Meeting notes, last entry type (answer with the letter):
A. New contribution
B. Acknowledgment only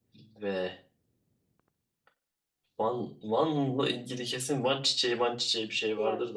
A